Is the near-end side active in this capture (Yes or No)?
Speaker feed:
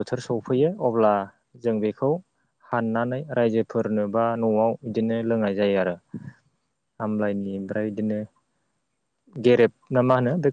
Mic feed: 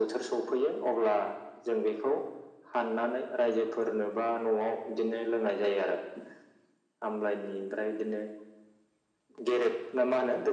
No